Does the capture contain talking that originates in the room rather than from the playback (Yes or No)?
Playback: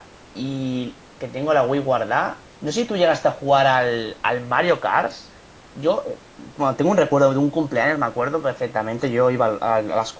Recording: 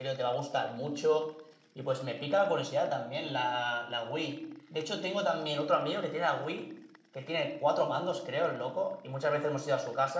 Yes